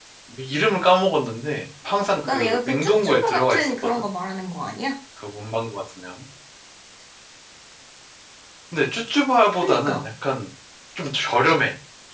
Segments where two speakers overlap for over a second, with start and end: 2.2-4.0

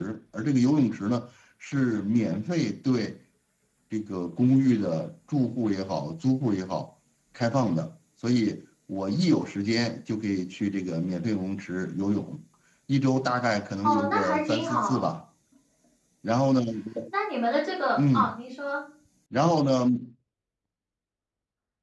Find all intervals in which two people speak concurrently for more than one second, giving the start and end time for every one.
13.8-15.1

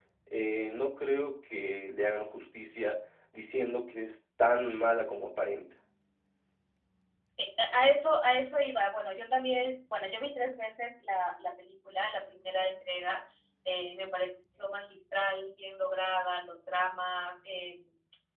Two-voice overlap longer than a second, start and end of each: none

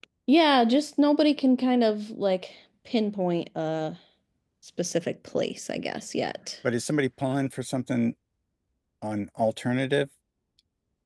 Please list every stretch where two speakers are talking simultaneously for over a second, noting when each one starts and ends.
none

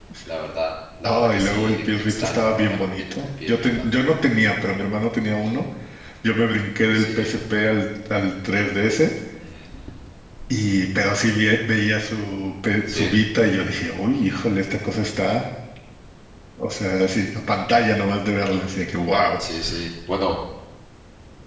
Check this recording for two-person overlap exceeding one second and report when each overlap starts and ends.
1.0-3.9

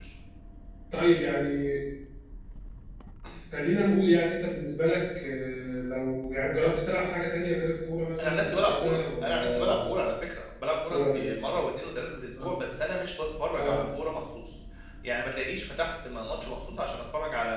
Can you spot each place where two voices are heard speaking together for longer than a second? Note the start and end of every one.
8.2-9.6

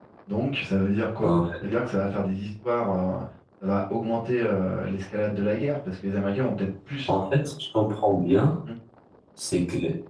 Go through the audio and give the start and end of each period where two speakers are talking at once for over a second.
none

